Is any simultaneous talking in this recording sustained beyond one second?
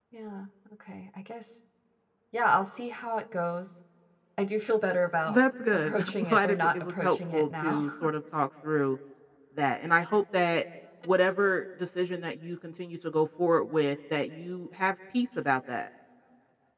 Yes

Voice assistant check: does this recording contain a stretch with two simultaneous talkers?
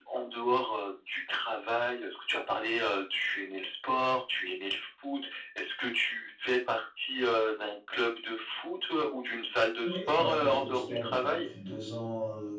Yes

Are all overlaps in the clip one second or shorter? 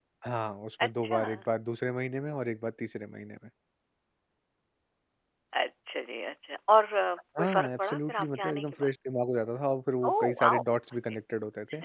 No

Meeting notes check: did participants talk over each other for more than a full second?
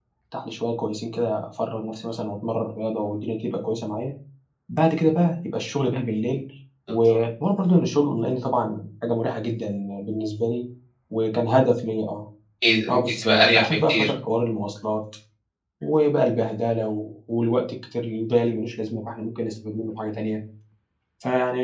Yes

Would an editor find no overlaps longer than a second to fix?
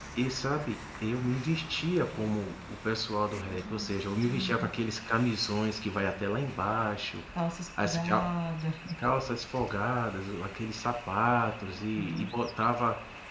Yes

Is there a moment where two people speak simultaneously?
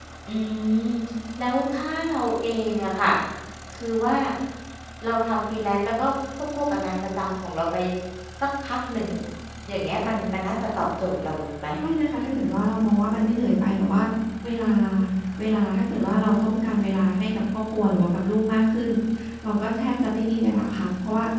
No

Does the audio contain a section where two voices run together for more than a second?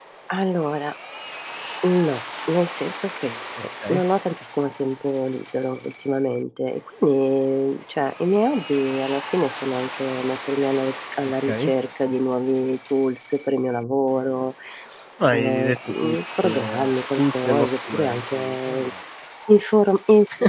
Yes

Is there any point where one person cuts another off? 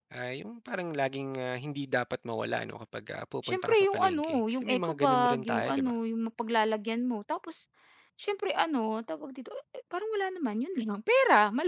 Yes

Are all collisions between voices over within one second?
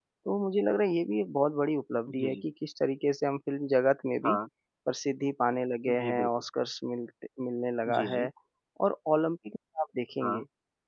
Yes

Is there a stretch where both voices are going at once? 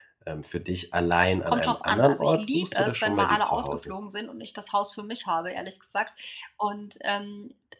Yes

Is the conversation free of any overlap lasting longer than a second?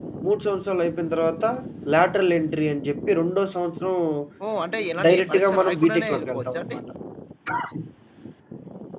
No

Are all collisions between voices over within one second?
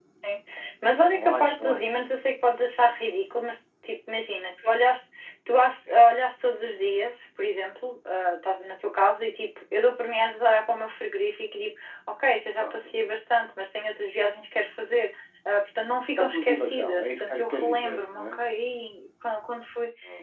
No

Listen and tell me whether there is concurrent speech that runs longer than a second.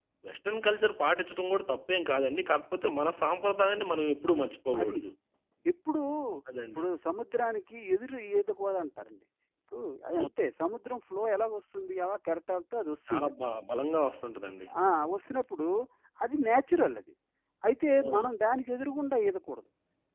No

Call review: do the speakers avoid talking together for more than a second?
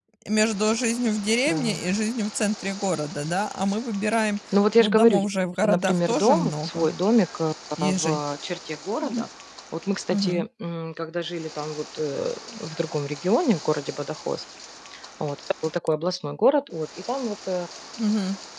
No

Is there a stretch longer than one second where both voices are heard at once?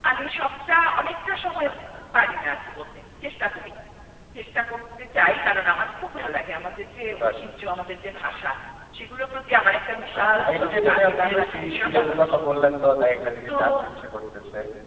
Yes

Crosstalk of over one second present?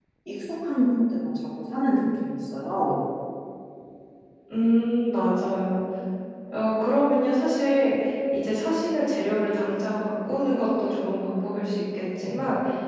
No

